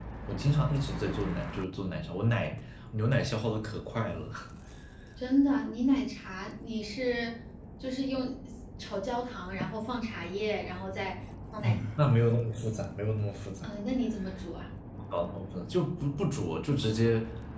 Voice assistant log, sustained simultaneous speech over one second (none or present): none